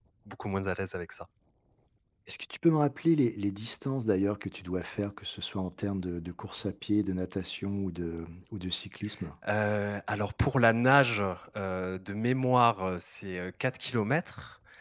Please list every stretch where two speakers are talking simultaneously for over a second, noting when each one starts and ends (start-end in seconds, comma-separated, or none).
none